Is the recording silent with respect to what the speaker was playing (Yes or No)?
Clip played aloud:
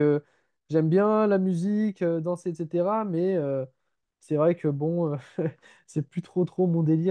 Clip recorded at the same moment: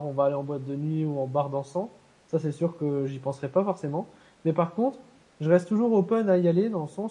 Yes